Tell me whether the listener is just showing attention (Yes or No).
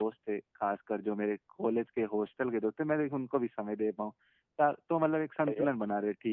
Yes